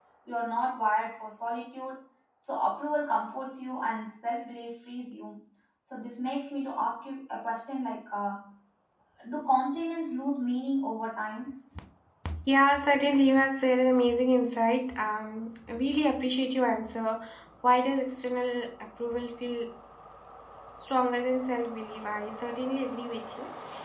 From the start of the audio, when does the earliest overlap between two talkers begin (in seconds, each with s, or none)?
none